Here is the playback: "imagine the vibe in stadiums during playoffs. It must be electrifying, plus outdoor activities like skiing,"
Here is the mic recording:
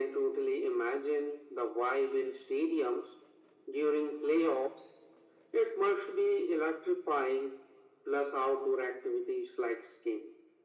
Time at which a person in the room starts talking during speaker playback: none

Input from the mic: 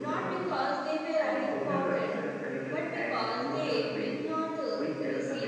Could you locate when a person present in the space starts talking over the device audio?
none

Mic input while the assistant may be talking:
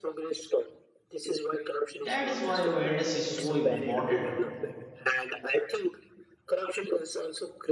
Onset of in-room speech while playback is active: 2.0 s

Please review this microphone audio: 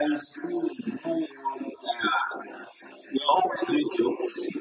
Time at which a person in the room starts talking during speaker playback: none

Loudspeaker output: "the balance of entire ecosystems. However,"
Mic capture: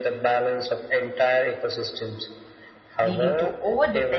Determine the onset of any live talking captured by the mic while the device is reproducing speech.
3.0 s

